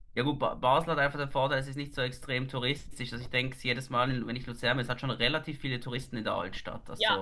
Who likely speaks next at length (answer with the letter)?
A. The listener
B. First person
A